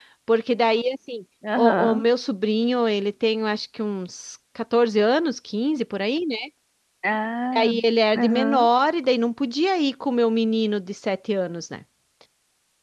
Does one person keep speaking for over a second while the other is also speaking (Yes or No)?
No